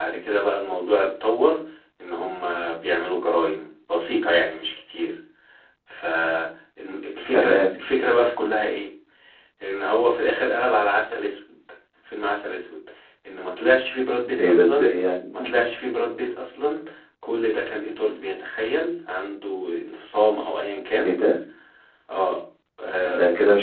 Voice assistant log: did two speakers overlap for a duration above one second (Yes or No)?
No